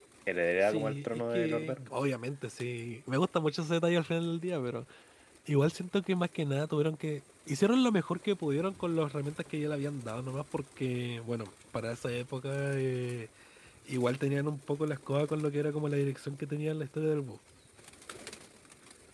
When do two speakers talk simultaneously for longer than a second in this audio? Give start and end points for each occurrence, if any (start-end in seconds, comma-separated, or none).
0.6-1.9